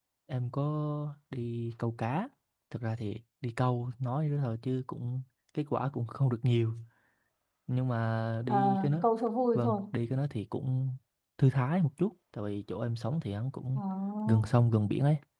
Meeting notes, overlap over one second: none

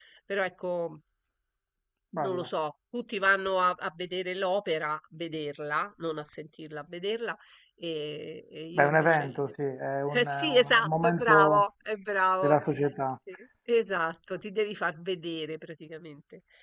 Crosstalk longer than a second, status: present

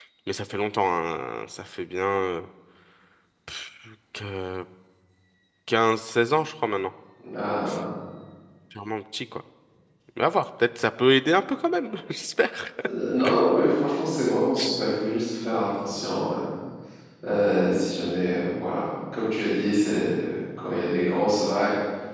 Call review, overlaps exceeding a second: none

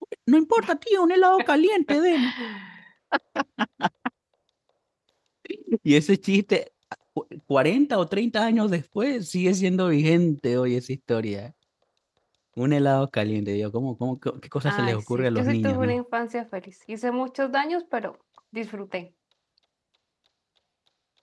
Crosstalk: present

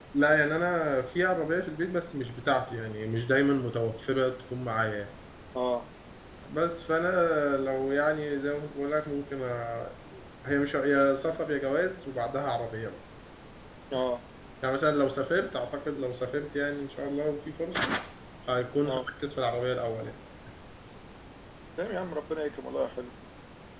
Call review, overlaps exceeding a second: none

